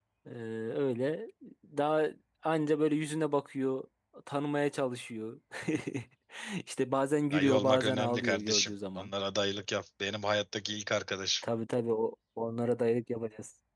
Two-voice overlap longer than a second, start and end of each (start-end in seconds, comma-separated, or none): 7.3-9.1